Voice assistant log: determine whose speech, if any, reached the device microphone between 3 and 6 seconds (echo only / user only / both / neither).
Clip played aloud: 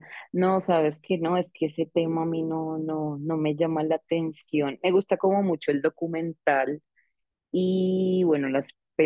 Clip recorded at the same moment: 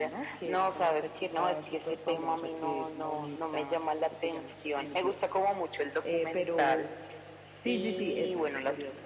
both